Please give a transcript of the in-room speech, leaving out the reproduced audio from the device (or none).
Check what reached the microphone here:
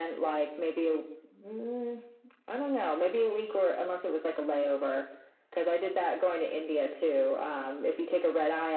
none